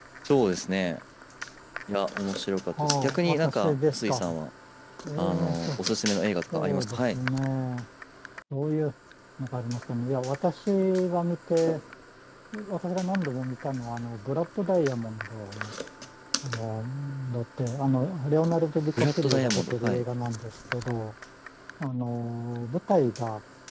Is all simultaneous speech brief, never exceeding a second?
No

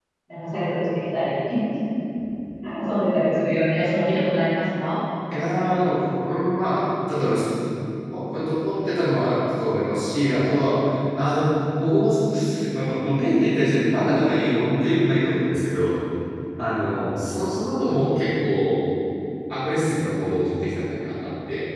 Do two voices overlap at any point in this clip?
No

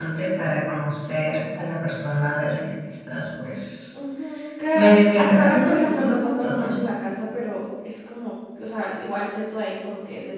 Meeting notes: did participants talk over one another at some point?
Yes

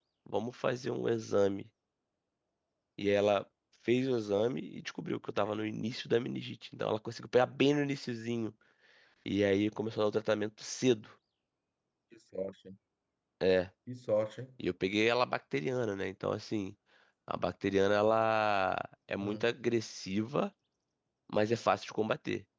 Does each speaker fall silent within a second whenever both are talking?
Yes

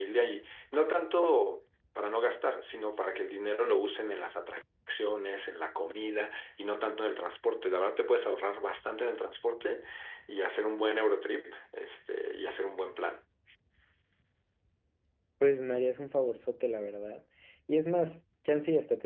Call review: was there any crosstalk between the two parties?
No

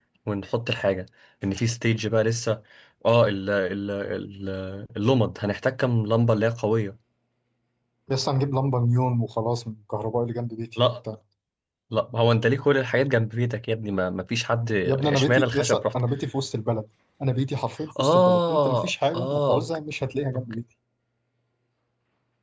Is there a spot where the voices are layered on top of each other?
Yes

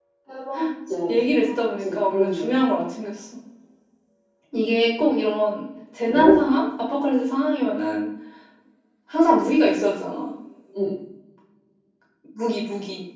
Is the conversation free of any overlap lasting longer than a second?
No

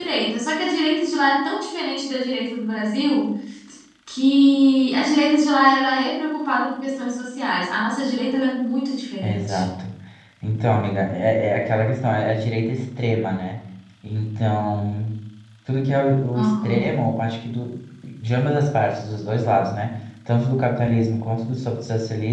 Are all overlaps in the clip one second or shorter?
Yes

